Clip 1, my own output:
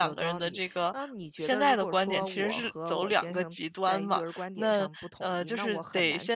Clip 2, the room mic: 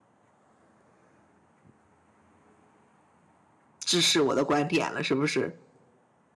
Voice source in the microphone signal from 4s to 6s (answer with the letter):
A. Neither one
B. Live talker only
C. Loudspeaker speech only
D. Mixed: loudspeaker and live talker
B